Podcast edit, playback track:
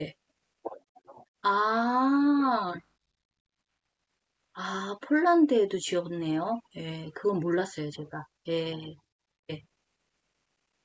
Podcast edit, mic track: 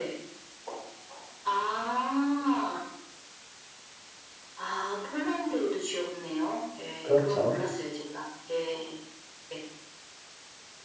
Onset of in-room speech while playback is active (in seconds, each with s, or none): 7.0 s